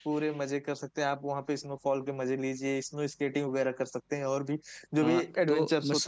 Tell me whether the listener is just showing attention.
No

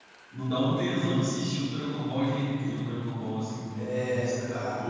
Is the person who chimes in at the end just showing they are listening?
No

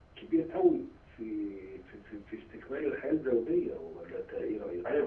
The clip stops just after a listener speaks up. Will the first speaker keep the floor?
No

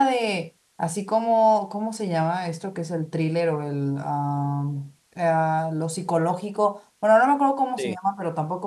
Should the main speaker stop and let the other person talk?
No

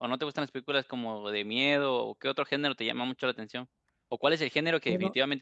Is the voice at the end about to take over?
No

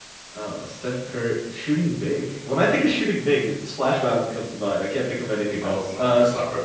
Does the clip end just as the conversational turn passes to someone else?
Yes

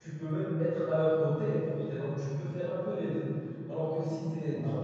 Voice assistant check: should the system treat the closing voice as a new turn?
No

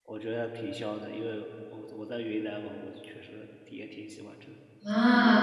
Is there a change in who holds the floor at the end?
Yes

